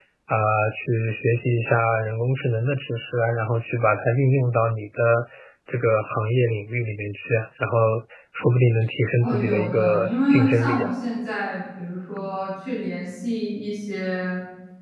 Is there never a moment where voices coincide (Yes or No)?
No